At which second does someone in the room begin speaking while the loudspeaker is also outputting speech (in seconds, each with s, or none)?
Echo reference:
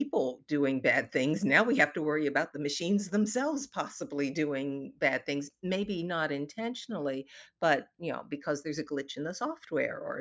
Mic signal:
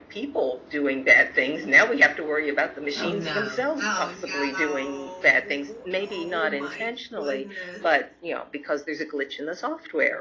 2.9 s